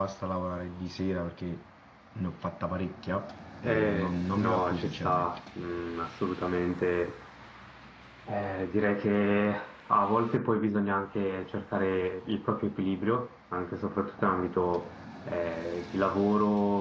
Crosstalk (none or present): present